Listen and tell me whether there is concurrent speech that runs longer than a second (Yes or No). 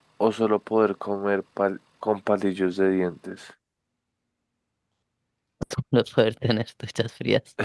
No